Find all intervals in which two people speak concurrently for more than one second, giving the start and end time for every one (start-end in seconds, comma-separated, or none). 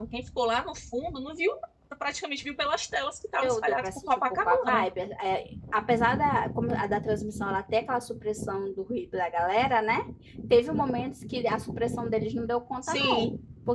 3.4-4.8